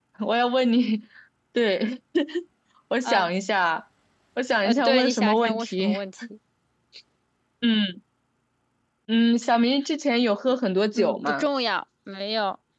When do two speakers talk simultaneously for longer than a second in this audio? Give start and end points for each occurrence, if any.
4.6-6.0

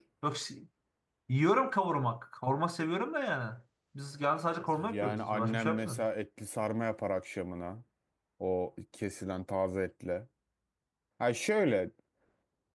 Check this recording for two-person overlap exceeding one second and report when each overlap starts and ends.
4.8-6.1

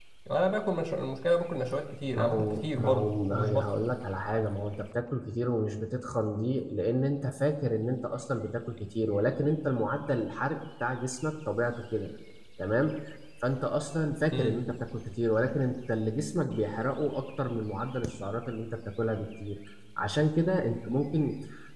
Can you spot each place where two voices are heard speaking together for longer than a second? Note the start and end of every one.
2.1-3.6

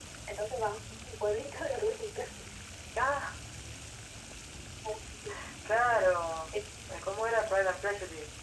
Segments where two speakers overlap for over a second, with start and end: none

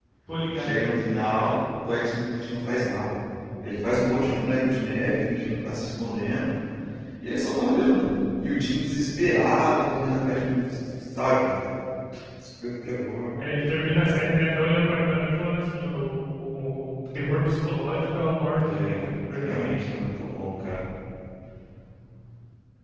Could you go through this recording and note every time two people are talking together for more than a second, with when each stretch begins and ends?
none

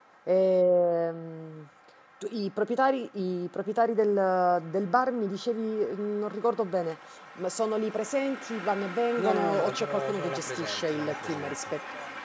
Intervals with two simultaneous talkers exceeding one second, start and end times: 9.2-11.6

